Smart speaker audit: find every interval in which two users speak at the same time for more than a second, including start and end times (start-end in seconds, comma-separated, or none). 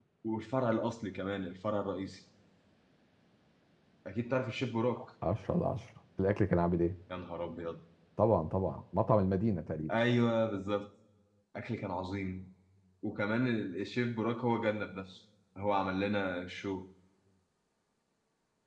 none